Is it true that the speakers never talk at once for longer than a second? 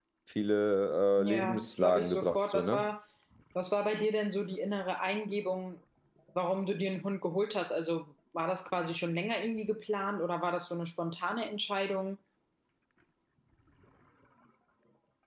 No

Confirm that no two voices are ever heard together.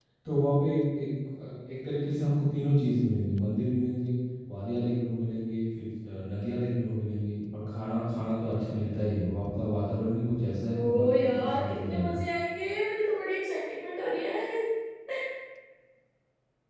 No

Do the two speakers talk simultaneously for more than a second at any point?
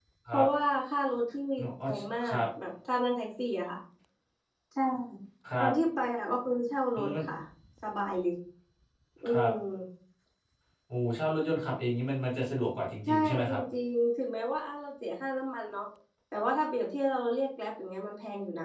No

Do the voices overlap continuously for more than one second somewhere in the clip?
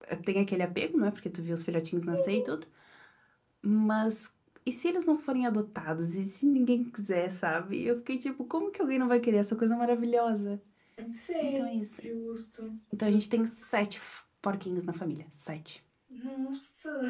No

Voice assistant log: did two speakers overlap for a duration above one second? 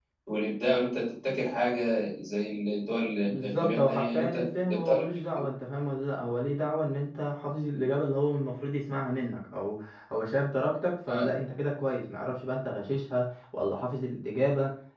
Yes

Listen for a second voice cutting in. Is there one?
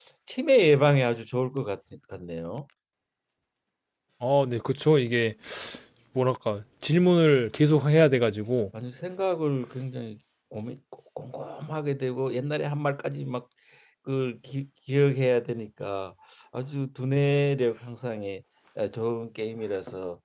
No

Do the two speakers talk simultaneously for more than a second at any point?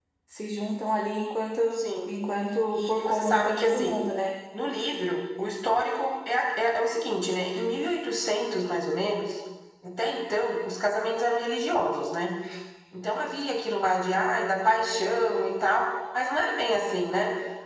Yes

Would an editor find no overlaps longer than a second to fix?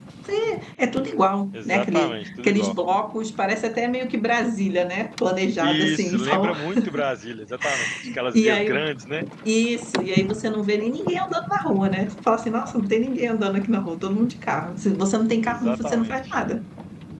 No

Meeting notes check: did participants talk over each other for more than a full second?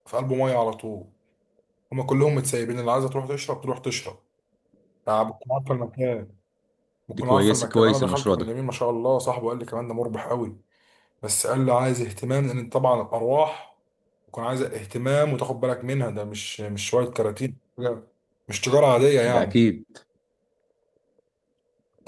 Yes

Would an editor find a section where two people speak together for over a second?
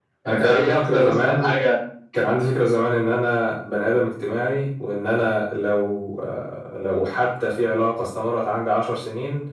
Yes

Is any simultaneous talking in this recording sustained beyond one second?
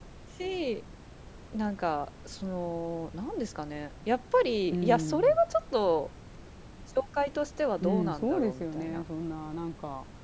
Yes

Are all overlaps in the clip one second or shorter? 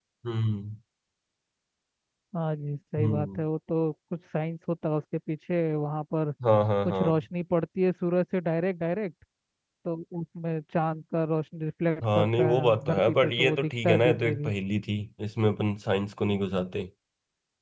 No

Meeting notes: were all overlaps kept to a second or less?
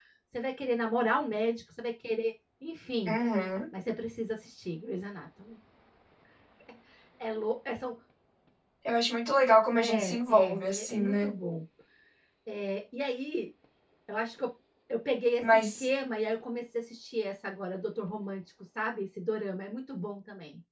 No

